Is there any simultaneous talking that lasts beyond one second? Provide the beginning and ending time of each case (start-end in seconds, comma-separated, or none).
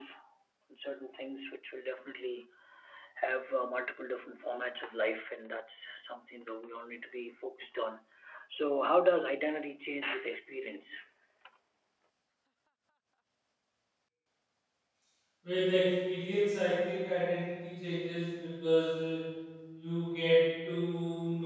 none